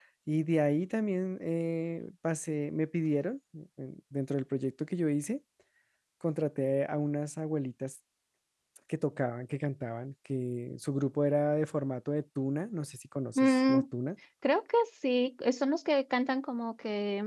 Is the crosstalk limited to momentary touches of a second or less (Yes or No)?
Yes